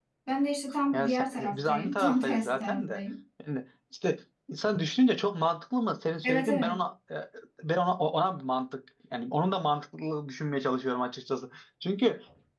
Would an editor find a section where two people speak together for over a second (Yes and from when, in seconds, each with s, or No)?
Yes, from 0.9 s